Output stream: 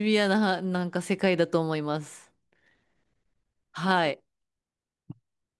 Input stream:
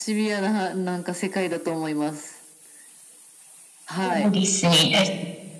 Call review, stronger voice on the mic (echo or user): user